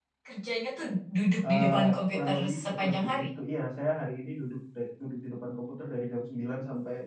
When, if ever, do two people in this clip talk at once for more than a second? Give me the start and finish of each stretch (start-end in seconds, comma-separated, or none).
1.4-3.3